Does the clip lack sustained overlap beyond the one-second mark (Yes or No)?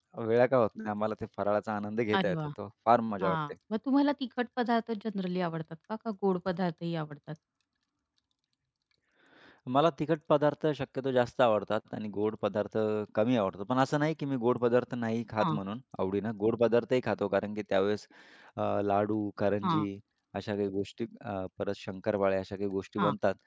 Yes